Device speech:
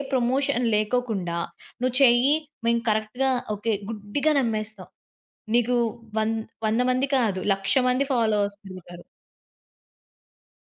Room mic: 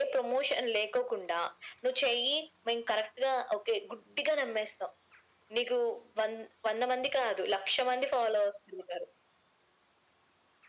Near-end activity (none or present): none